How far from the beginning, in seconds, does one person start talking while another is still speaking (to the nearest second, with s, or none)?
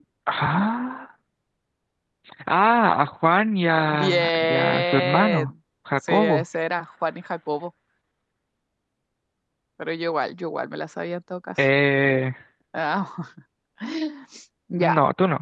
4 s